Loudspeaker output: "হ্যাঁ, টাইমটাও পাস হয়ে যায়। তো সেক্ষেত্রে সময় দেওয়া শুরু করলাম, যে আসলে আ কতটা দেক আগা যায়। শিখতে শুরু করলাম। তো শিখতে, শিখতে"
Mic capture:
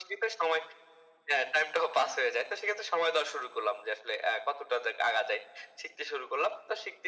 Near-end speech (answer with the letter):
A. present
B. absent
B